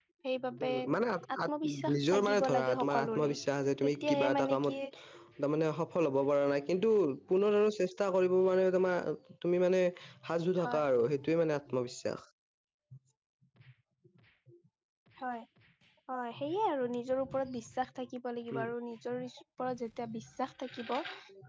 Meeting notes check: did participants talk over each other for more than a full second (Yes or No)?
Yes